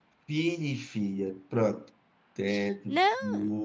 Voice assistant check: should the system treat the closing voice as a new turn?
No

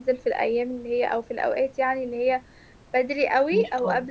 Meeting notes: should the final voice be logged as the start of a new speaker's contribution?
No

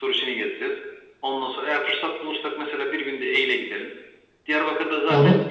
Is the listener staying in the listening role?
Yes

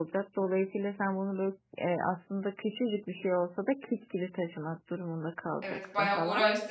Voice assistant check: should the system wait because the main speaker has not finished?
No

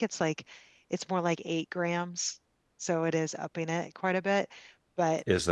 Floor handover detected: Yes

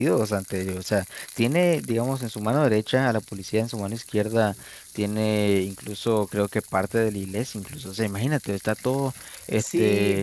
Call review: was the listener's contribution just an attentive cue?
No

